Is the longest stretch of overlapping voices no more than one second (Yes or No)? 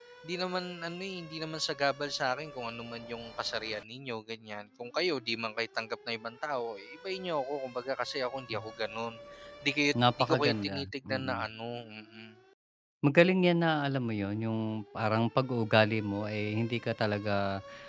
No